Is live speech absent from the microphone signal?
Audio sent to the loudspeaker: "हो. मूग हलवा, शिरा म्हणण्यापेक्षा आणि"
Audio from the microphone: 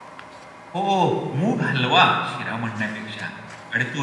Yes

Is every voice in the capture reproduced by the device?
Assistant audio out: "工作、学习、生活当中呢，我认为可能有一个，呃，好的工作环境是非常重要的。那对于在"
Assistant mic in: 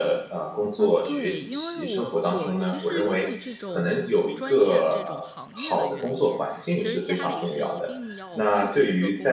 No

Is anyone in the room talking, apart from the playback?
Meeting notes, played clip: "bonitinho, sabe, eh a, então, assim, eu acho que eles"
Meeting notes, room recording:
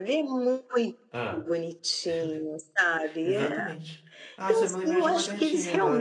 Yes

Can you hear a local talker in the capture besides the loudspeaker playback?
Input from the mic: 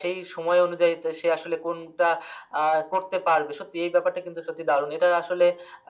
No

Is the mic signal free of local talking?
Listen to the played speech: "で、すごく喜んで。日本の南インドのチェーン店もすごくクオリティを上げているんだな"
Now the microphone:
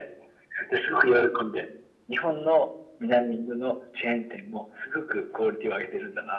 Yes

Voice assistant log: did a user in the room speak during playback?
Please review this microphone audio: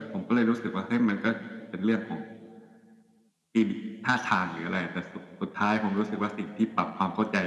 No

